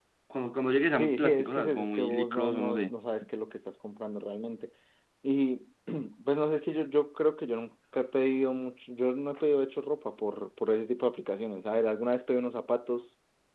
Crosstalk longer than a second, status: present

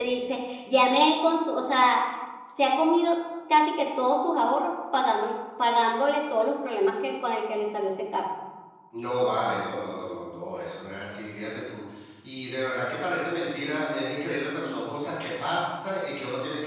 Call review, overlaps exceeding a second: none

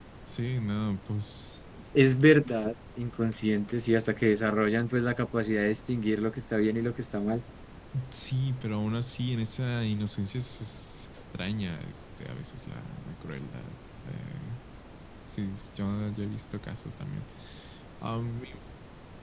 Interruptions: none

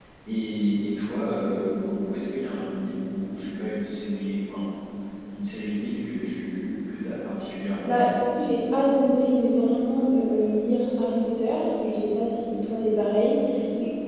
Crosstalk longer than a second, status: none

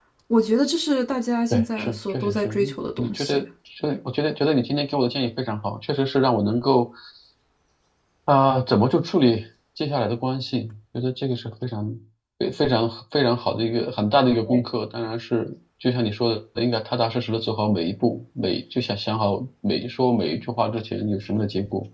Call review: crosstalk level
present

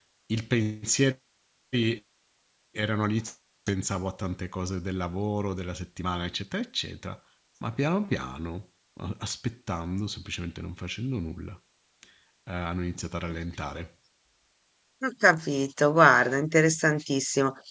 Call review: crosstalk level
none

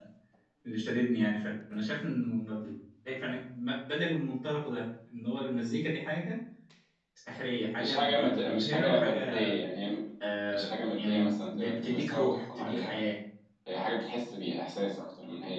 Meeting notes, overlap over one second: present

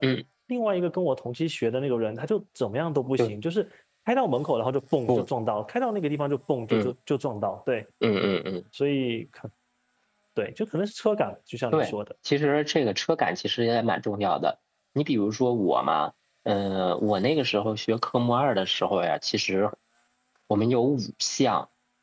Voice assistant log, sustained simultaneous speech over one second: none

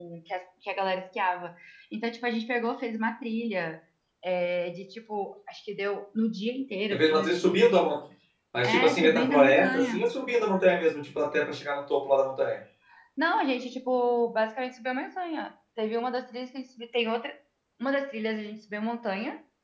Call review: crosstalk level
present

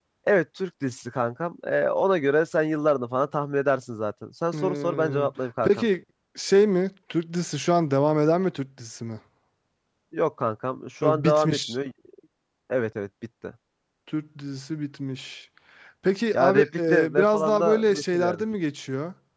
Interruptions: present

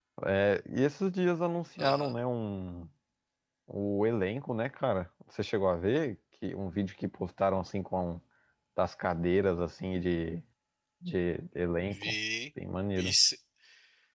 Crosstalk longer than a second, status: none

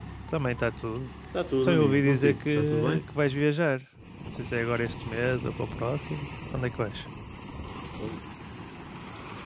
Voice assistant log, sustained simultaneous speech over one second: present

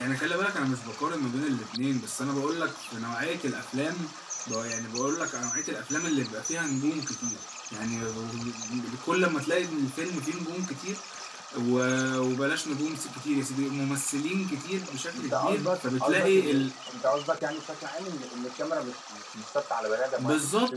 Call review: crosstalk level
present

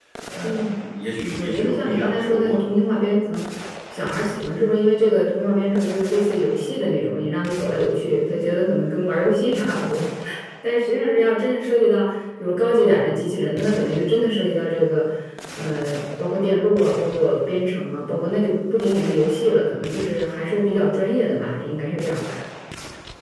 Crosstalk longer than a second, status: present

